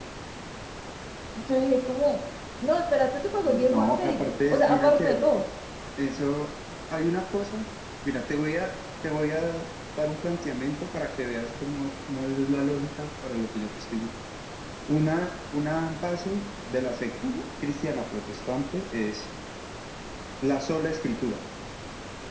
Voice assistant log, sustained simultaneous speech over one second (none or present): present